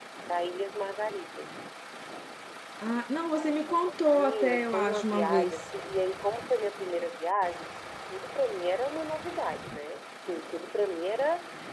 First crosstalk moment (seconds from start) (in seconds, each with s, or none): 4.1 s